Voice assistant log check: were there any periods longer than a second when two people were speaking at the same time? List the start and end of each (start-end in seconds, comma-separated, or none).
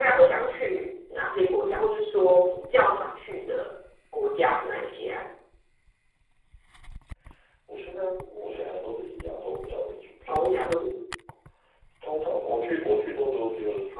none